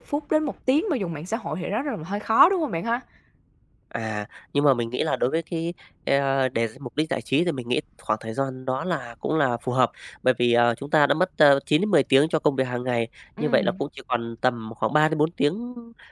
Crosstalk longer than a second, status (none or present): none